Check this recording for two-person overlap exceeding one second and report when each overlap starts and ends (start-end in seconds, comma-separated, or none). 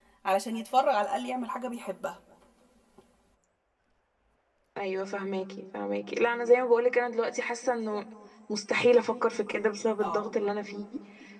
none